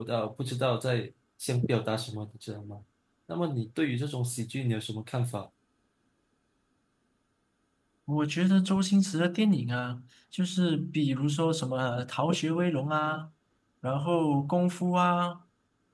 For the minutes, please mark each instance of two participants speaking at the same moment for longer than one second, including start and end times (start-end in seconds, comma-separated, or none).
none